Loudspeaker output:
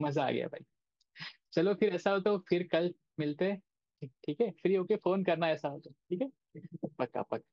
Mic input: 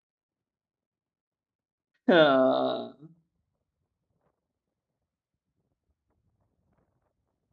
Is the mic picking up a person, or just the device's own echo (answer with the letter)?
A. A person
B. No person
A